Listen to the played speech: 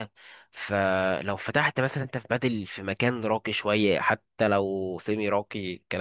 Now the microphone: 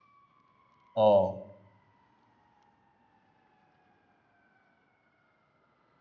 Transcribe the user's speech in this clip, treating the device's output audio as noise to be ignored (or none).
اه